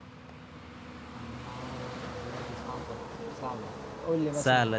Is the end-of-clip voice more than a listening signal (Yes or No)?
Yes